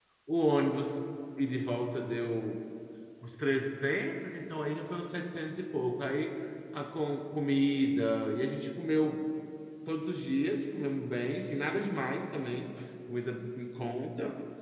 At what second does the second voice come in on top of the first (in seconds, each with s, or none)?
none